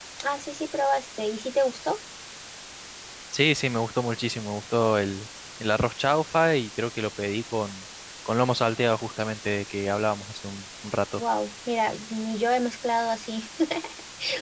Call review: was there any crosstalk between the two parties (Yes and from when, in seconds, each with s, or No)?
No